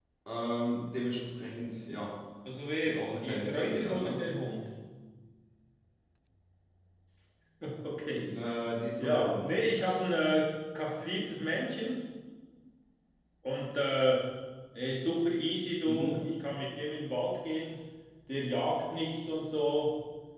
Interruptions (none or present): present